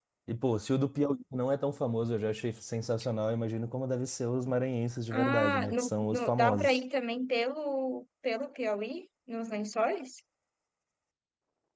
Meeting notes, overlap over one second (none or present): present